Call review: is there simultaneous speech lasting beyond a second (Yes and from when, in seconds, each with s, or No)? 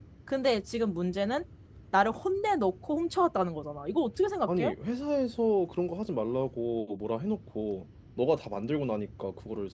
No